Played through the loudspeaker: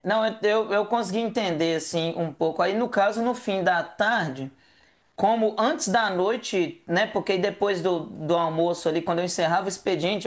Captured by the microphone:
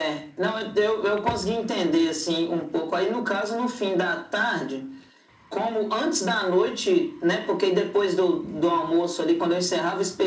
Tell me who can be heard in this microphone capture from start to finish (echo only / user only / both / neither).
echo only